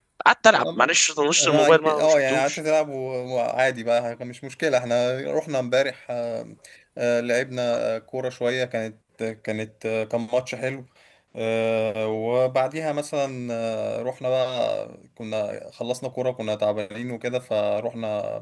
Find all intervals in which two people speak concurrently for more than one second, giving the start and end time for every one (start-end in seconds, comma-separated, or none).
1.4-2.6